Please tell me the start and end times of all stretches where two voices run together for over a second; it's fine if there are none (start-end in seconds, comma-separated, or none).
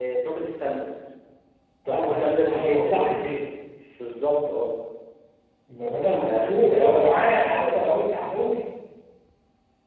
1.9-3.2, 6.2-7.9